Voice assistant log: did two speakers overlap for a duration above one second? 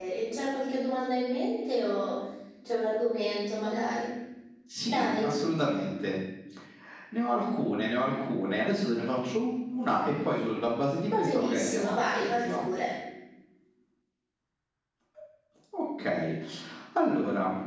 Yes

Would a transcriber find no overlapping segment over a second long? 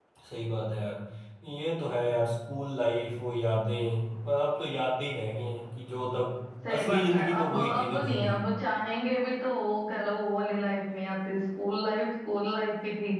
No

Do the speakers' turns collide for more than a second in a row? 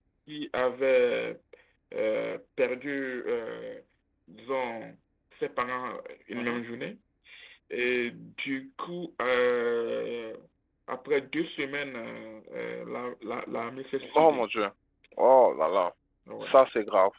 No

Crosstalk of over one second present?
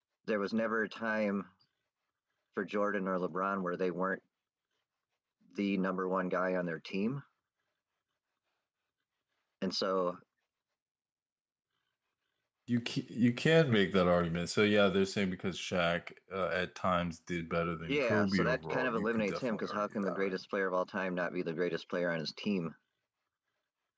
Yes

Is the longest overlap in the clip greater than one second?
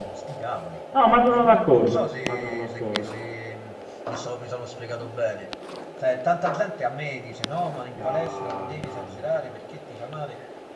Yes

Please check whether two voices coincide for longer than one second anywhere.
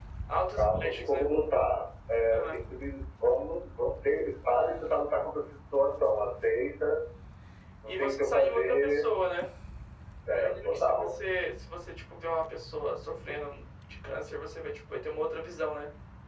Yes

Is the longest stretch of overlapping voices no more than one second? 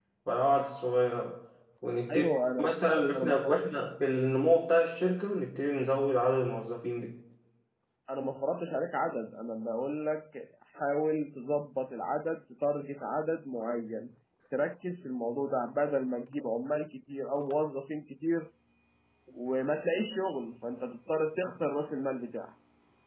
No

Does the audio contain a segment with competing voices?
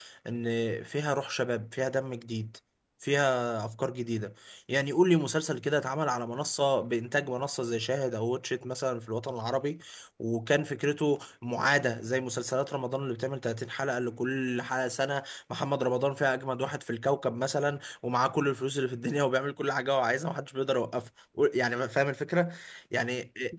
No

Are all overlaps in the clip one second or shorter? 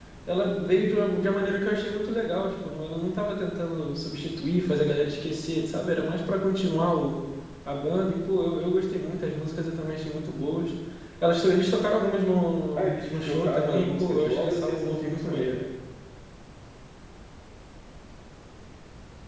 No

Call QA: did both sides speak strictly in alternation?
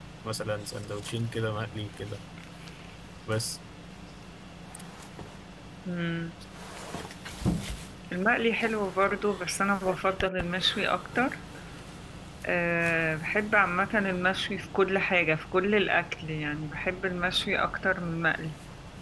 Yes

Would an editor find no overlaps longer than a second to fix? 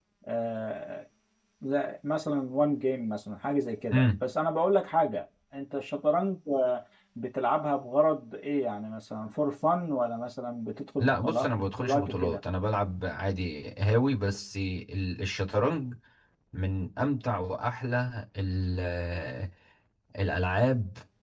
No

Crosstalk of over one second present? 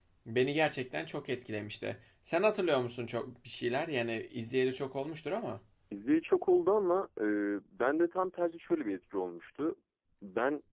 No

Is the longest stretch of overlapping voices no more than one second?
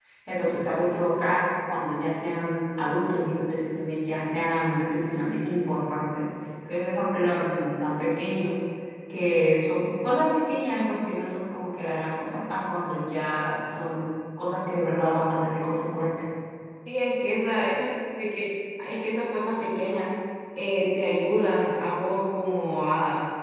Yes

